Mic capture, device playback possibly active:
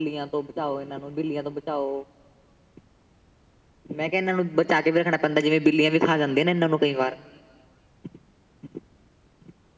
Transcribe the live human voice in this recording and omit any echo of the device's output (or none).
none